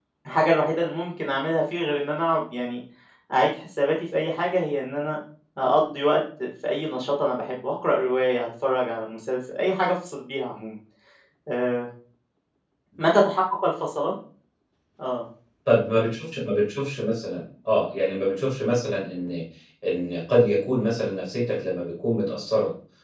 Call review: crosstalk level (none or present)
none